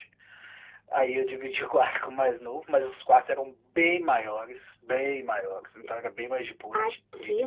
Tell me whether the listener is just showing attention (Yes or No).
No